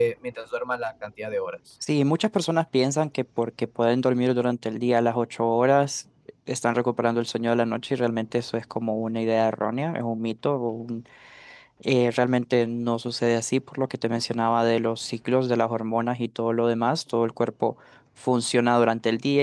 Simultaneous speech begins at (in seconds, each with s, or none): none